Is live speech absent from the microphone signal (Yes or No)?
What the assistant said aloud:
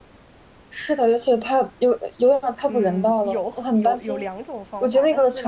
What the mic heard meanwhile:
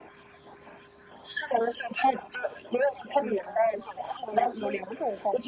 Yes